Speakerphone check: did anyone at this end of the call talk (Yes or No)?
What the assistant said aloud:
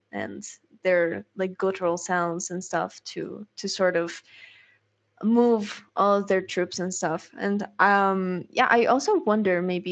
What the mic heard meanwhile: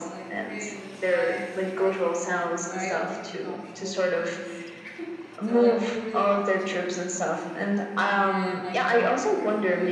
Yes